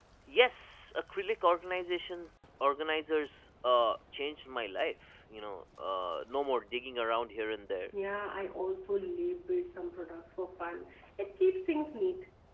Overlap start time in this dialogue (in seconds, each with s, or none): none